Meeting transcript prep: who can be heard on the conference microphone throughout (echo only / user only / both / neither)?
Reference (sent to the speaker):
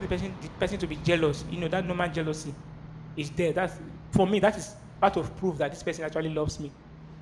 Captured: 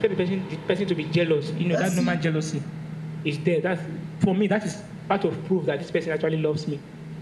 both